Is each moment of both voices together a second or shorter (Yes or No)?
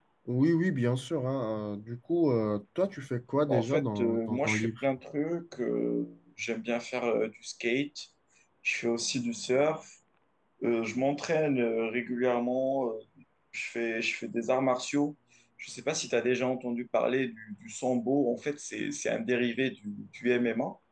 No